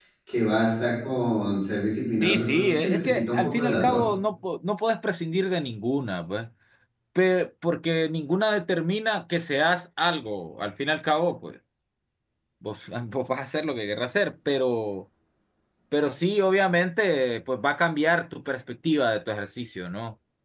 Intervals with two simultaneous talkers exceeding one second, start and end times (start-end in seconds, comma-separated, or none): 2.2-4.0